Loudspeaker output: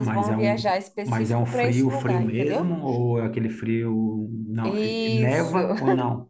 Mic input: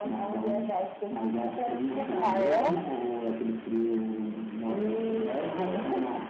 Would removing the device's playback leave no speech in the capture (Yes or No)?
No